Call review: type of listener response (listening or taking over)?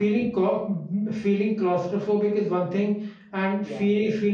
listening